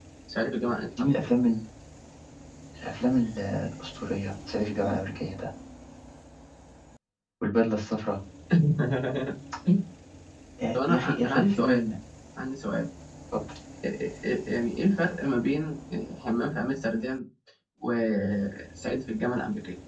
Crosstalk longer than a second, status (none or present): present